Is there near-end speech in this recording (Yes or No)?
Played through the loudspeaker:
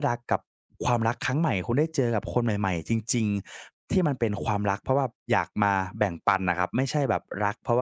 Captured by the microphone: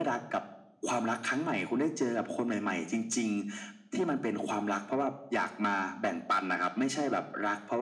No